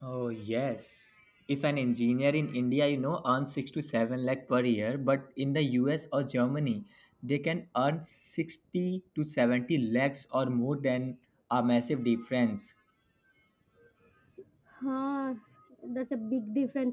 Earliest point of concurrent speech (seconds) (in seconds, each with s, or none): none